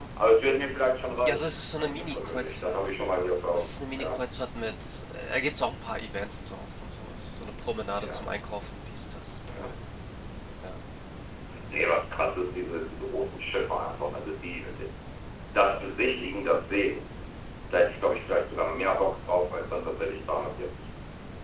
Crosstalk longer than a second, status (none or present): present